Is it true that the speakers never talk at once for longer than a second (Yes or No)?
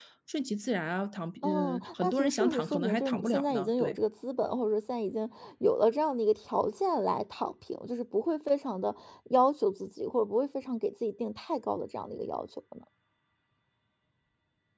No